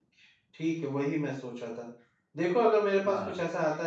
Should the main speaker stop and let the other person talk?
No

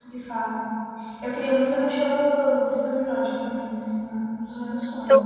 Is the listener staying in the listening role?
No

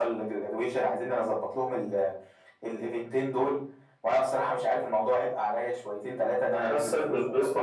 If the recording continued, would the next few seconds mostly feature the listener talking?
Yes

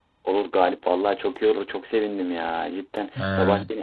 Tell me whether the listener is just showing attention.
Yes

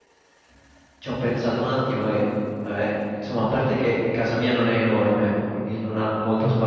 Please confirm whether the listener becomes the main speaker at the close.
No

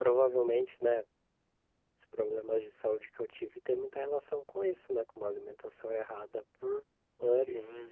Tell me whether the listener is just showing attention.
No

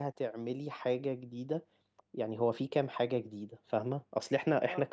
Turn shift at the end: No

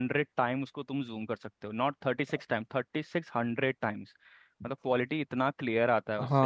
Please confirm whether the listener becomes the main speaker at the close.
Yes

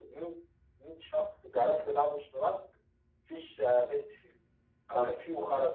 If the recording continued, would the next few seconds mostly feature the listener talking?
No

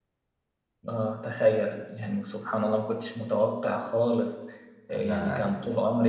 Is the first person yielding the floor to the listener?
No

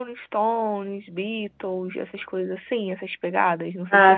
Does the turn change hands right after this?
Yes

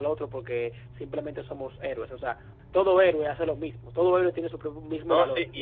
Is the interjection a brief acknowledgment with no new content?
No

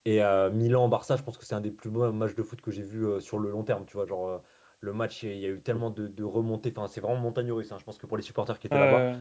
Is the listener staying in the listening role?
Yes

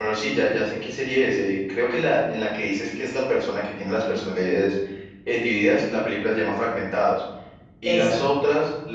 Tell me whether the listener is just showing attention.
Yes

